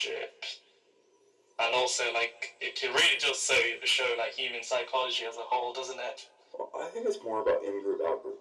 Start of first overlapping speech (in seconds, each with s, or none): none